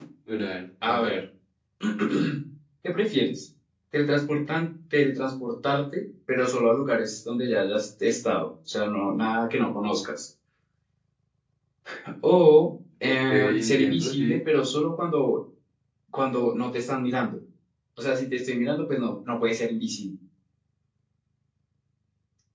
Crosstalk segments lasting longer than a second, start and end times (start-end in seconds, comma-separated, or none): 13.0-14.4